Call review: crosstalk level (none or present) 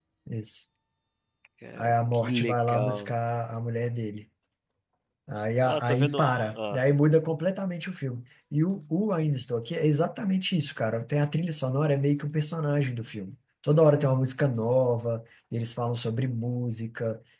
present